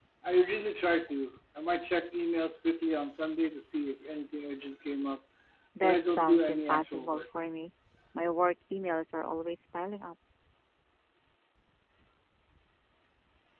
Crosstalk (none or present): present